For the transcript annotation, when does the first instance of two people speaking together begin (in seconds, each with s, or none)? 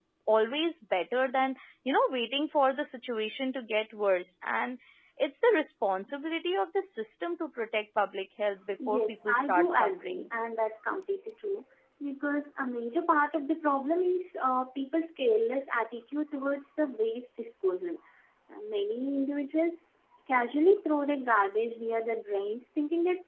8.8 s